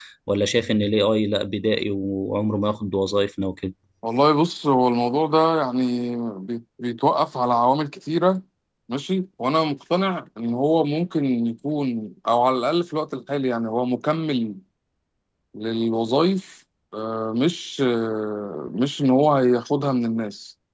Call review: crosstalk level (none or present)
none